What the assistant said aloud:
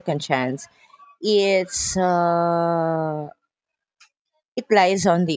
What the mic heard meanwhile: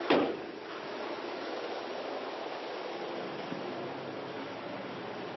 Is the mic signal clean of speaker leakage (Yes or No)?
Yes